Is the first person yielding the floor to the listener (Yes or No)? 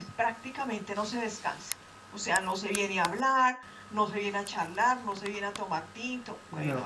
Yes